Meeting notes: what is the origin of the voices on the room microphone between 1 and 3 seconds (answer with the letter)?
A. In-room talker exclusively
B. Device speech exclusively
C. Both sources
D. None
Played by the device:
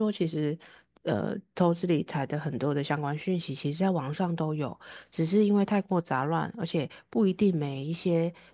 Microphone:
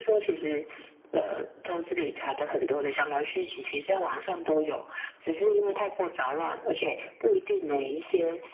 B